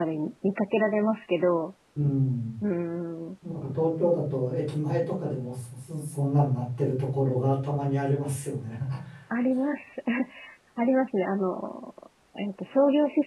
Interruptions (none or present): none